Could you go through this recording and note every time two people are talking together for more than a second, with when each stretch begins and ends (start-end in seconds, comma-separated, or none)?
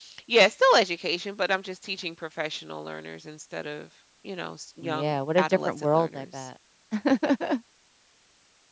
4.8-6.5